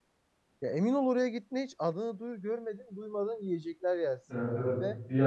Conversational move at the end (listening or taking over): taking over